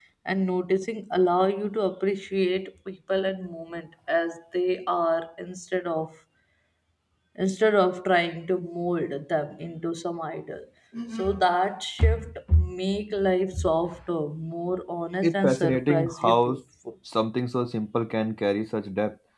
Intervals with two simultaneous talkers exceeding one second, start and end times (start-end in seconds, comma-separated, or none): 15.2-16.6